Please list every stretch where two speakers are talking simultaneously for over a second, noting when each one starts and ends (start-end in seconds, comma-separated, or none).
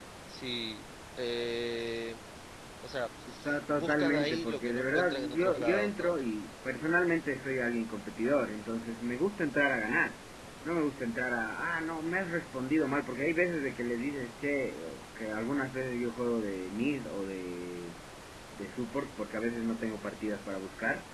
3.7-6.2